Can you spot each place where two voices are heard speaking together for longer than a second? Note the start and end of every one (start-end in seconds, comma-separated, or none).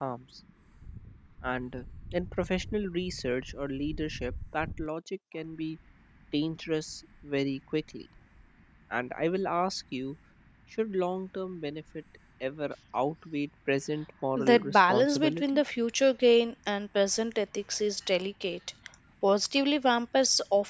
14.4-15.6